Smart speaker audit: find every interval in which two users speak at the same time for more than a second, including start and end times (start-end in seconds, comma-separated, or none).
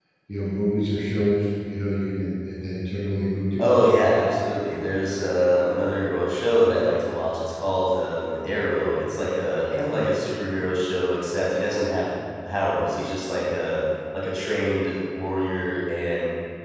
none